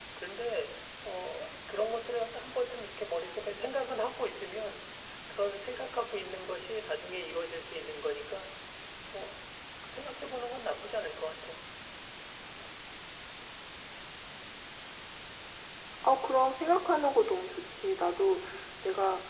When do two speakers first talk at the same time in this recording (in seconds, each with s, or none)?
none